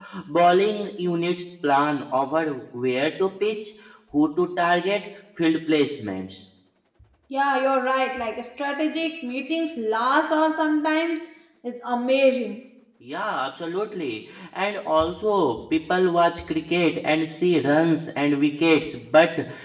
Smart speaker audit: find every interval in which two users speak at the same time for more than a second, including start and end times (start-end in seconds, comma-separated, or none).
none